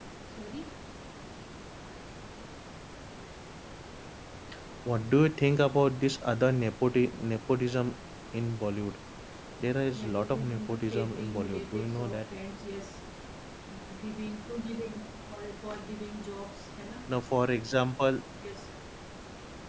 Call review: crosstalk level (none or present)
present